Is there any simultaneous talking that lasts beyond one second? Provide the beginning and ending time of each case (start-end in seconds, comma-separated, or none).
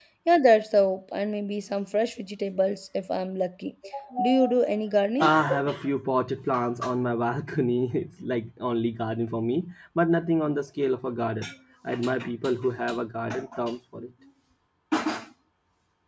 none